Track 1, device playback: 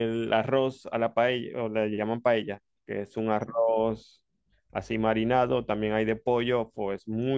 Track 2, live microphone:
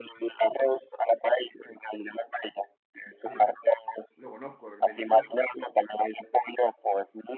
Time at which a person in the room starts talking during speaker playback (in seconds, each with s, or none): 3.1 s